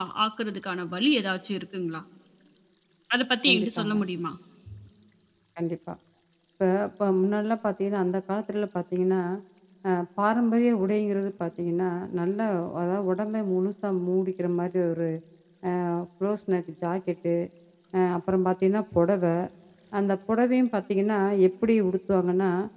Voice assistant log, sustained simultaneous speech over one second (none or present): none